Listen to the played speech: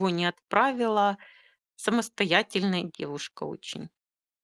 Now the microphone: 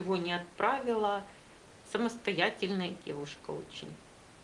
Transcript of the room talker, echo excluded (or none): none